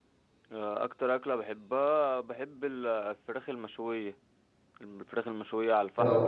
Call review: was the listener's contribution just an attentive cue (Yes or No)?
Yes